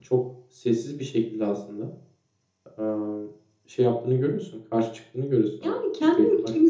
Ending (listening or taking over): taking over